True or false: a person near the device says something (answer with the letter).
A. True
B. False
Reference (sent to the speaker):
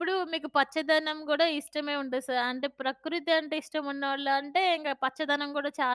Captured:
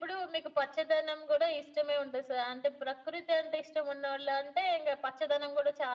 B